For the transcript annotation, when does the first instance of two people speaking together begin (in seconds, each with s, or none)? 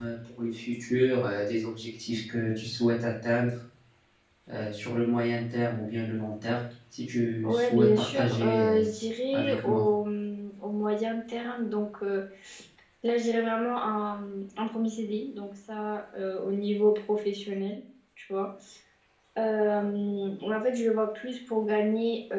7.4 s